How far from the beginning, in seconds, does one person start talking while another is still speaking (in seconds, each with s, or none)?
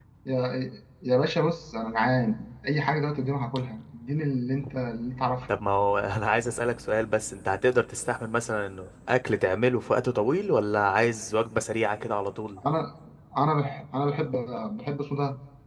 none